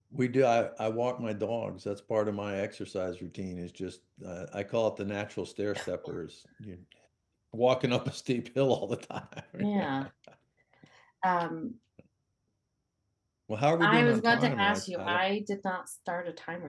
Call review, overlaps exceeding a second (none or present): present